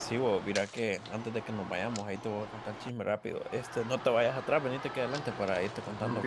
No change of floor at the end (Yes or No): No